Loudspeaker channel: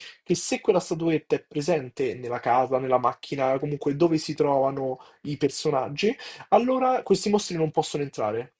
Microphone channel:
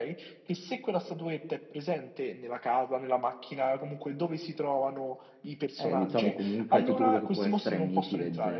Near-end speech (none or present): present